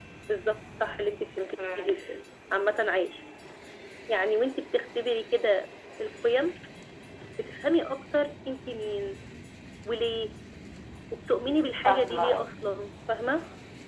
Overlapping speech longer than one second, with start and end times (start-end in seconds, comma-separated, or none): 11.3-12.5